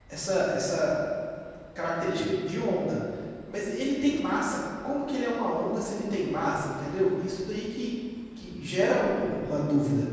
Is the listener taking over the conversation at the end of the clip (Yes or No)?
No